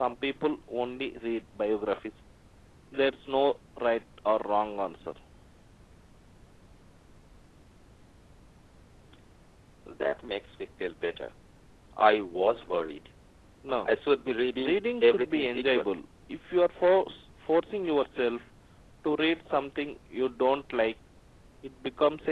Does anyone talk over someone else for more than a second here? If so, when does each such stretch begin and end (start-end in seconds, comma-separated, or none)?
14.6-15.9